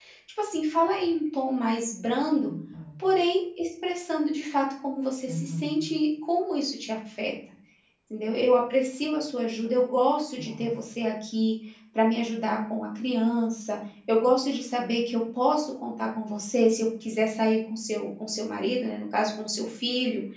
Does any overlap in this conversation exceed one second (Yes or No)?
No